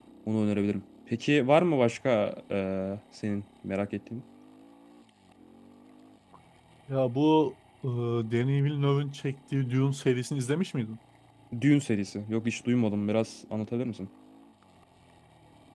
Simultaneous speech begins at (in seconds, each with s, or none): none